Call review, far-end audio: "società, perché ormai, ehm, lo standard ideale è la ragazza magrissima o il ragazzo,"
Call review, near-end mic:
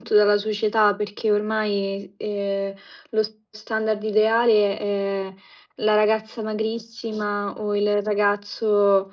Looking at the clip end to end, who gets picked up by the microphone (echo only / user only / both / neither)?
echo only